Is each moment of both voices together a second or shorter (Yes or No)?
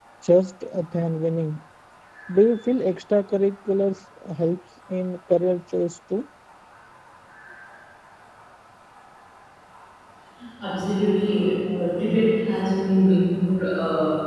Yes